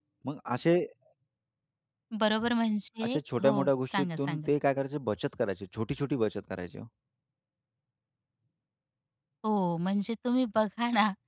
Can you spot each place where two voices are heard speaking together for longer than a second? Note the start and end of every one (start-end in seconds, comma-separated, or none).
3.0-4.5